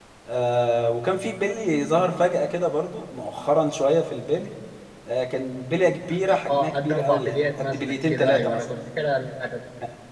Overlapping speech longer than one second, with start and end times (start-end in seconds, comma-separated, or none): 6.3-8.6